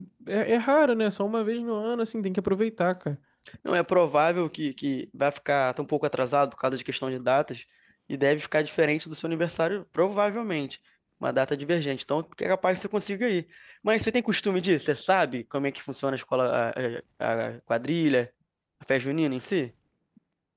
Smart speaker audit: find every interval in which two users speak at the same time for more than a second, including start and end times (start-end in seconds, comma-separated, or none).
none